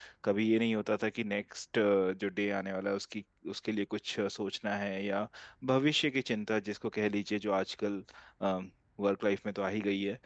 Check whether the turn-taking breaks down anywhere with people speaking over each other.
No

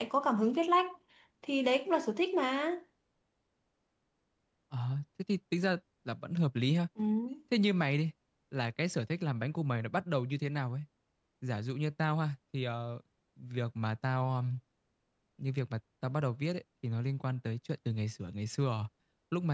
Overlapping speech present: No

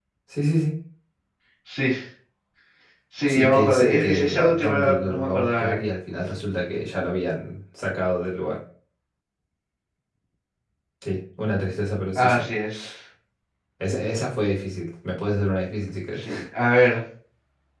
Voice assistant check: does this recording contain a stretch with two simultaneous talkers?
Yes, from 3.3 s

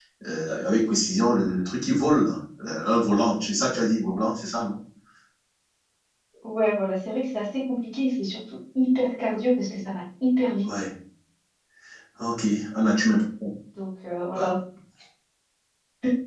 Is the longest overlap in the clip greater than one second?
No

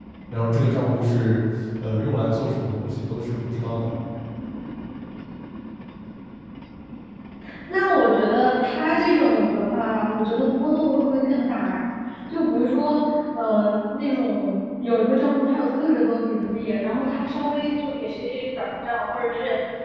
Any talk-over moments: No

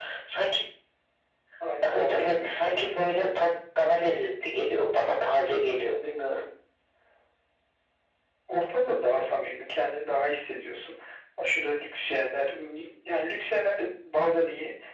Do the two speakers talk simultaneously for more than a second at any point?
Yes, from 1.8 s

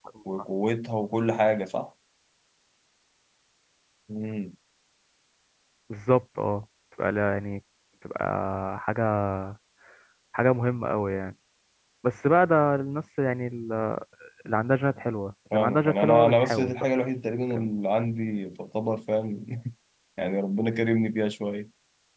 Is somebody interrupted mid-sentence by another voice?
Yes, from 15.5 s

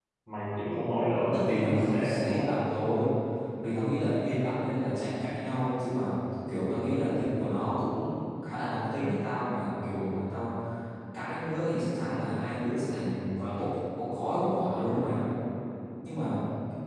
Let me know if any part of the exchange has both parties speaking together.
Yes, from 1.3 s

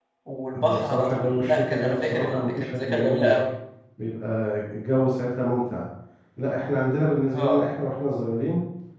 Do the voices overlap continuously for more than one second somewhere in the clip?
Yes, from 0.6 s

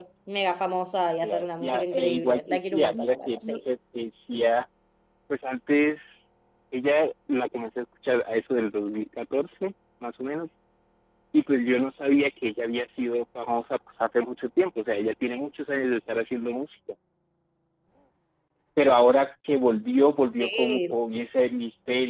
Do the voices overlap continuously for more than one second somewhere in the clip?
Yes, from 1.2 s

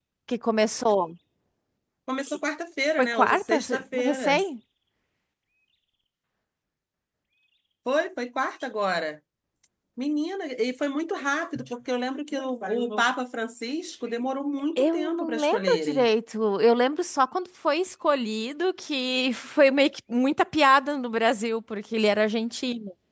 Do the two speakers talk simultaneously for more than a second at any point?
Yes, from 3.0 s

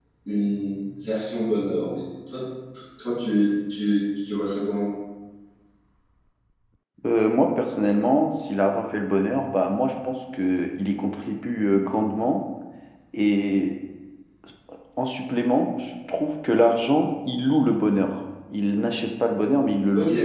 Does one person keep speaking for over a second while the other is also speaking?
No

